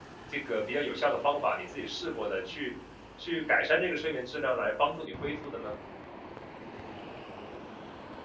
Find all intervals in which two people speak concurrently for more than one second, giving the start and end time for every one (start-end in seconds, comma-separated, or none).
none